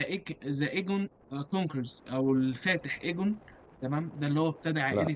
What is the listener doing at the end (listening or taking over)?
listening